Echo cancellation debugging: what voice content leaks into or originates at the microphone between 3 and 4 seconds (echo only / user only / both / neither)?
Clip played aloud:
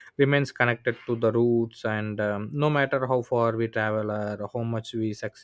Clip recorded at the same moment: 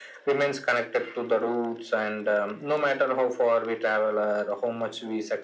echo only